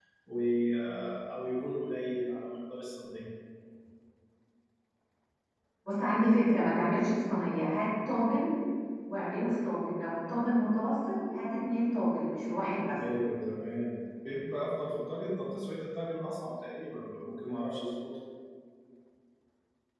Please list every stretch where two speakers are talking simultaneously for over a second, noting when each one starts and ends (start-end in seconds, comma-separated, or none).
none